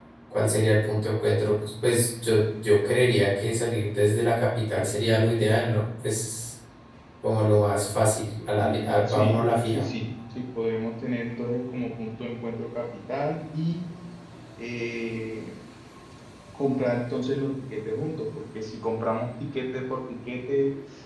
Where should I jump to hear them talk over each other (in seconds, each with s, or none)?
8.5 s